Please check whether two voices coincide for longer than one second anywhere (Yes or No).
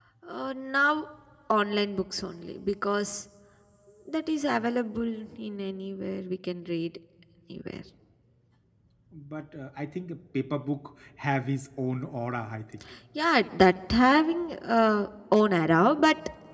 No